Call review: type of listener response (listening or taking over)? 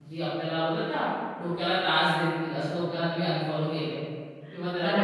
listening